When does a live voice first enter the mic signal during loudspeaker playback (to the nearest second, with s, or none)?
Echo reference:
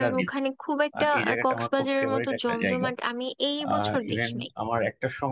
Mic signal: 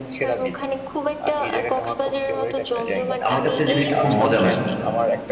3 s